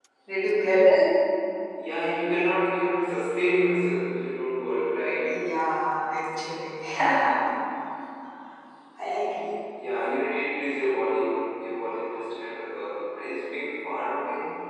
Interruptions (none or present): none